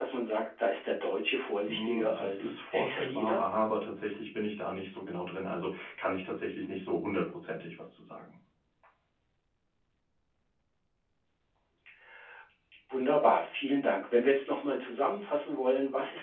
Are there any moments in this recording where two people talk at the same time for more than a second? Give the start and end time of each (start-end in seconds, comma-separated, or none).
1.6-3.4